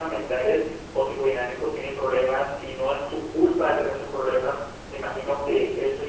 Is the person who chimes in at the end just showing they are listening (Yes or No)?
Yes